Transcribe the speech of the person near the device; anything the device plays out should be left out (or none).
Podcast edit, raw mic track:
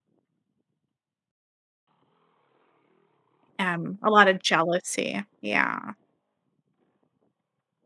um, a lot of jealousy, yeah.